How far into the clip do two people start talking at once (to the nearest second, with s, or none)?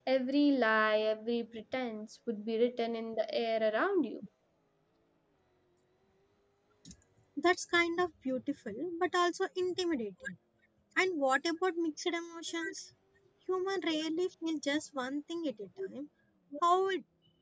none